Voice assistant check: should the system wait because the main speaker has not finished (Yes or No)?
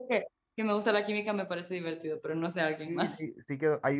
No